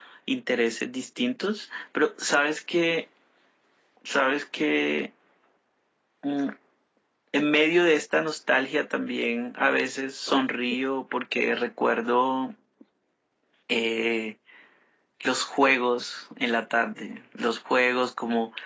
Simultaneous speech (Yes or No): No